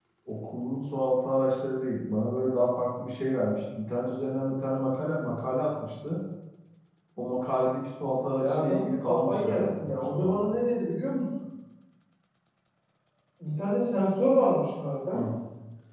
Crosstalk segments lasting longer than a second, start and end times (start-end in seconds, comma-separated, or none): 8.4-10.4